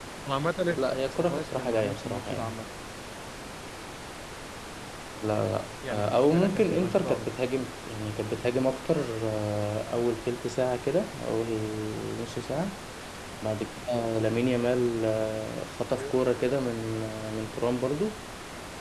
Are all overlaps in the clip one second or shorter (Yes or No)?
No